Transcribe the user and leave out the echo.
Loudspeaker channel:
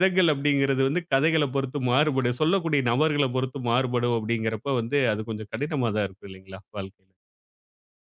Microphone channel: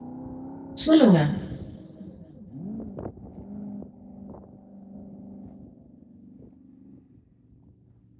சொல்லுங்க.

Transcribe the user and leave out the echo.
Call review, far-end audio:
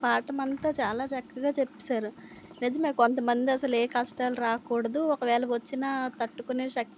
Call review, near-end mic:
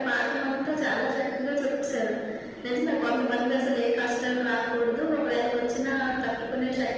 none

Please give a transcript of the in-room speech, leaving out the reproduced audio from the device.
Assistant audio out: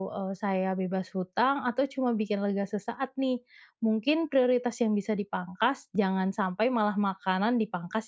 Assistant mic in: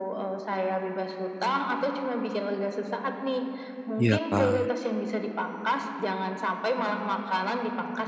Iya, Kak.

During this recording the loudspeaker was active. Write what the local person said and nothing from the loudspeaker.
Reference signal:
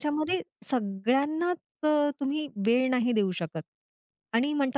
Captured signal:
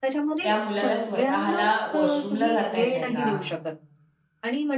त्या मुलाला स्वतःला वॉशरूमला जाता येतंय का?

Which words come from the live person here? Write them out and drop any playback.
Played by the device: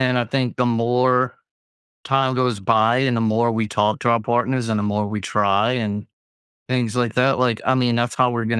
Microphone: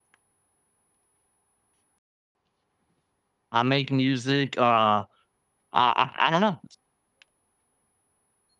I make music. Uh I I, I don't know.

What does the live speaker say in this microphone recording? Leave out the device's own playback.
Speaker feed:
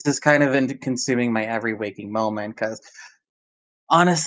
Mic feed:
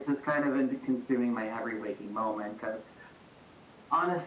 none

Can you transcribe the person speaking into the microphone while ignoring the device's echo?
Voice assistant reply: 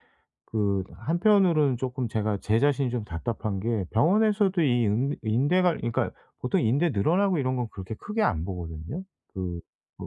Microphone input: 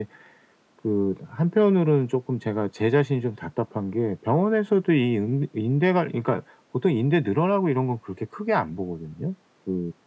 none

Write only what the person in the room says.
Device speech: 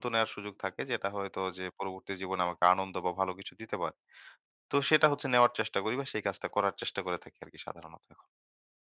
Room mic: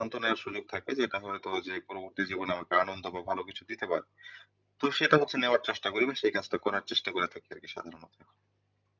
none

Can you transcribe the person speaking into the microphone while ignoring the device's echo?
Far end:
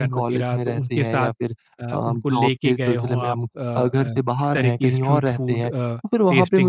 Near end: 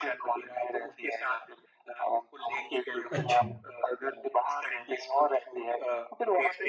अच्छा।

